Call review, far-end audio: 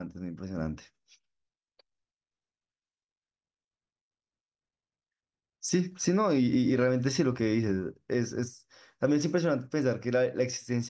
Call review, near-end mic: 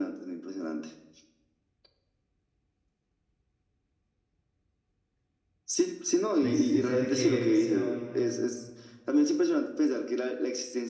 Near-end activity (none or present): present